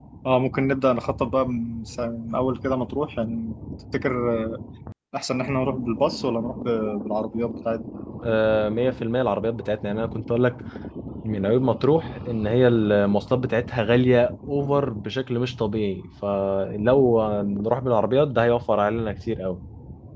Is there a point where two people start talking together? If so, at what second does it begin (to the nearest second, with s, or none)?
none